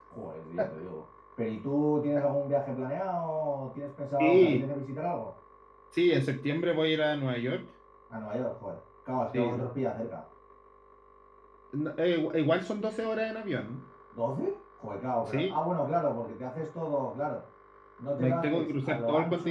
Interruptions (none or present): present